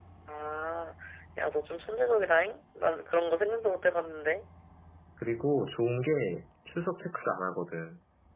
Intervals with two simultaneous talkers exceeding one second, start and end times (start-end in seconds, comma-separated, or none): none